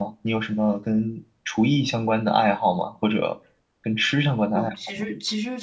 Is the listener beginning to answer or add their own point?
Yes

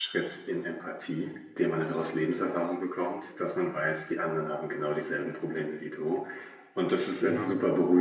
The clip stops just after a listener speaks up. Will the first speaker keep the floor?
Yes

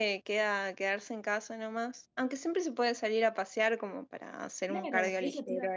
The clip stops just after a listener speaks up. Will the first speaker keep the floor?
No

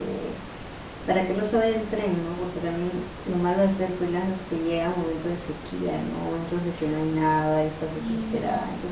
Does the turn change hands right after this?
No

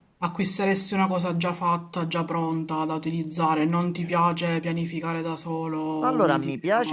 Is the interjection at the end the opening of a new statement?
Yes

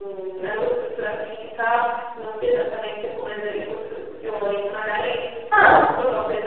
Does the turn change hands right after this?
No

